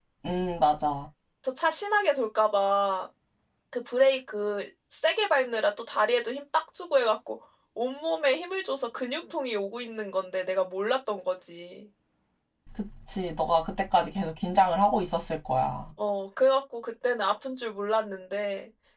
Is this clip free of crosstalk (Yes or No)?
Yes